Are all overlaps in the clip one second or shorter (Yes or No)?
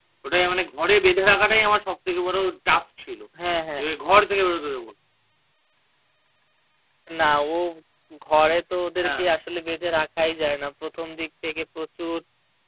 Yes